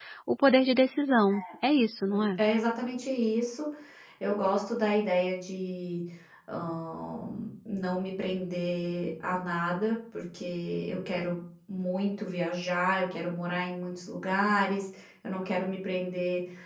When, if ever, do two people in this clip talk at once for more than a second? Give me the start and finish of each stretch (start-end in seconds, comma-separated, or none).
none